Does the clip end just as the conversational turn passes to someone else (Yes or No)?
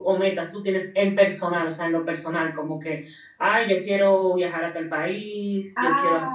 Yes